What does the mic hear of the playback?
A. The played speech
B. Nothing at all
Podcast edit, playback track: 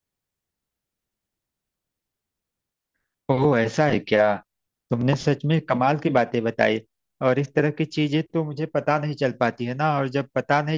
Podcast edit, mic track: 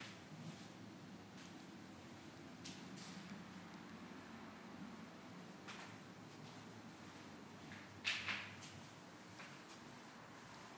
B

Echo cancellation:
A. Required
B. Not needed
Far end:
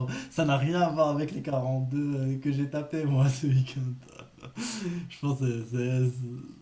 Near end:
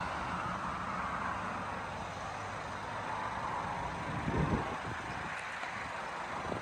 B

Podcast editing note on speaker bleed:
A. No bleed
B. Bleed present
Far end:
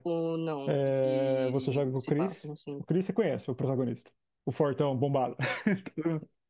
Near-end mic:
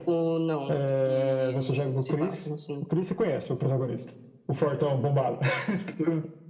B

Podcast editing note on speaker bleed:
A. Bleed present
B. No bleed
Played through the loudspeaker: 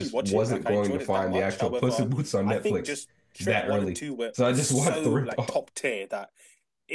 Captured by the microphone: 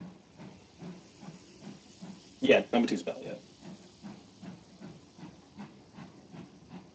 B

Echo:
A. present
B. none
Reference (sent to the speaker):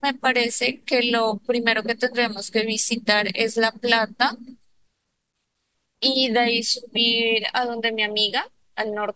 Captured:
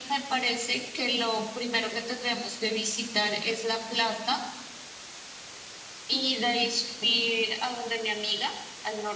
A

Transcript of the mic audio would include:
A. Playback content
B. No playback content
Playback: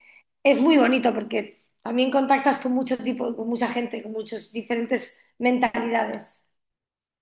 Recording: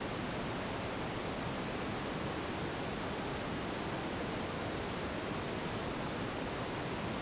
B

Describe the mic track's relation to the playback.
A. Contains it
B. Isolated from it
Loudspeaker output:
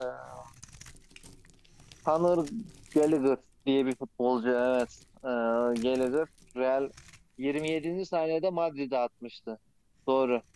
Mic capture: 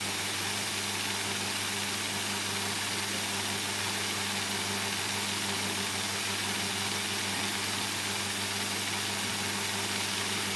B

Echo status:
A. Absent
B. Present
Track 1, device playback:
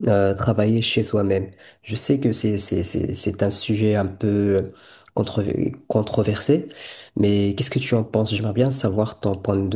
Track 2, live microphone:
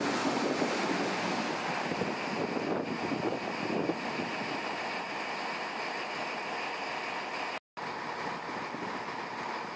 A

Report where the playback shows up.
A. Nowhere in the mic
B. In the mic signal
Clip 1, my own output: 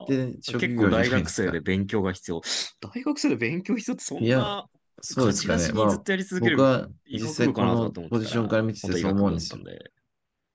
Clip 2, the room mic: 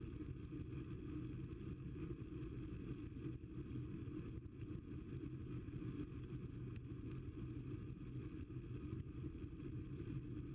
A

